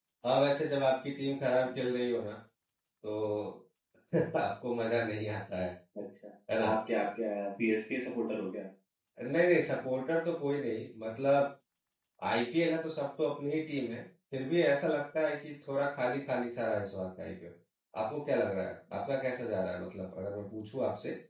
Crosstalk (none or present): none